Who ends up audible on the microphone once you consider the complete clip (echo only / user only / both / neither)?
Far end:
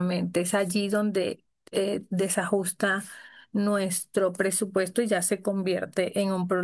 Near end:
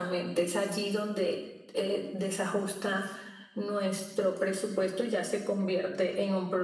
echo only